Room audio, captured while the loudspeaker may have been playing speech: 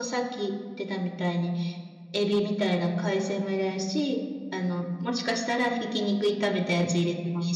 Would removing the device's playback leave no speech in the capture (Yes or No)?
Yes